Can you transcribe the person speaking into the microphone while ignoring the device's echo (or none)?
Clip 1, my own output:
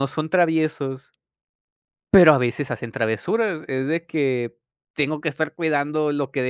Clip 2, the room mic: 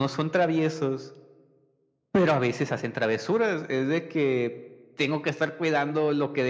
none